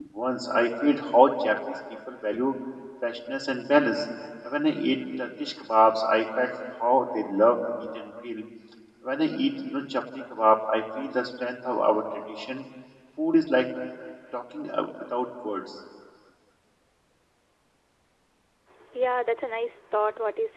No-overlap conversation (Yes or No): Yes